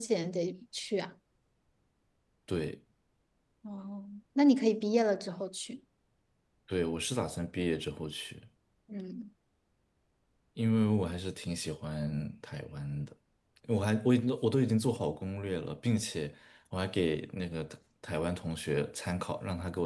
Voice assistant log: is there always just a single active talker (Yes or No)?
Yes